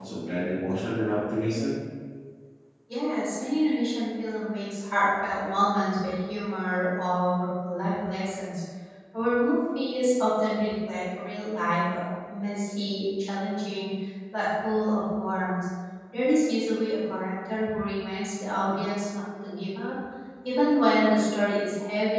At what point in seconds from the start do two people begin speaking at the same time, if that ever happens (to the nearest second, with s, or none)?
none